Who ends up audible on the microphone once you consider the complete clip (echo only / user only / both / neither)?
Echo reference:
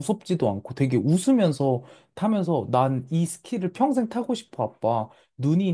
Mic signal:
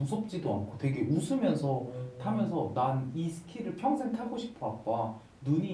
both